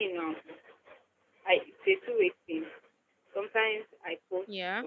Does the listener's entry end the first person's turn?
No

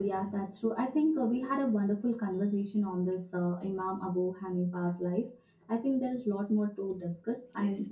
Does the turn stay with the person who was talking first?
Yes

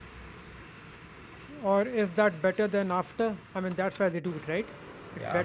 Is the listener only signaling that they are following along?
No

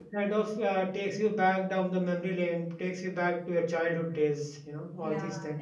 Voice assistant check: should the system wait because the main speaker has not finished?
No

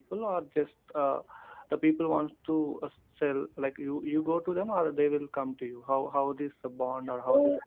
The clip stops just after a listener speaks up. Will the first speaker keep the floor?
No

